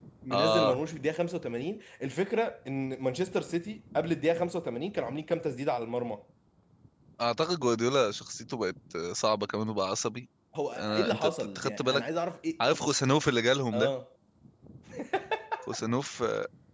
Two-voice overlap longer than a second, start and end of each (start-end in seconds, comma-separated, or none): 10.8-12.1